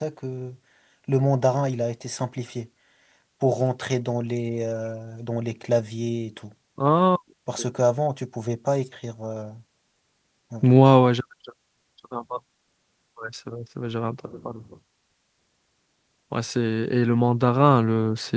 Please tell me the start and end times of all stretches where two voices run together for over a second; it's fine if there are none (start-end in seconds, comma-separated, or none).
none